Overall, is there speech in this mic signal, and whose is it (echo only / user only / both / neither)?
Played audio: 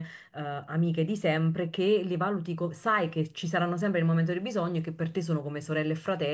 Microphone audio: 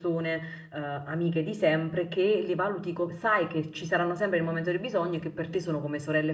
echo only